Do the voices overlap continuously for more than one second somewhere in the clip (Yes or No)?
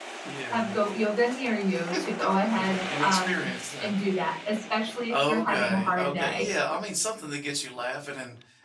Yes